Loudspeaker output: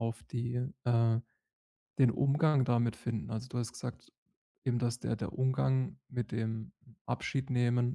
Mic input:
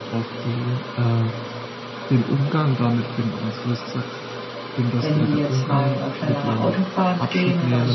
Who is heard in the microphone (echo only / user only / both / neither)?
both